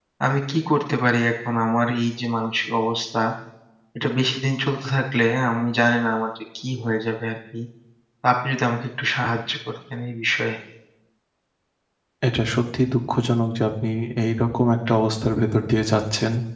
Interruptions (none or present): none